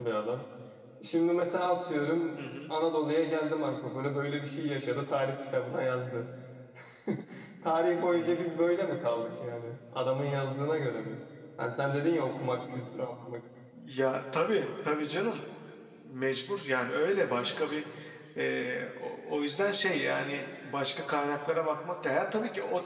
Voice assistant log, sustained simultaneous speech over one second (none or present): none